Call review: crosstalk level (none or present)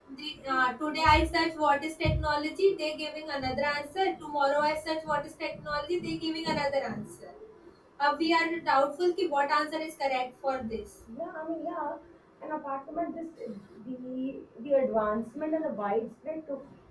none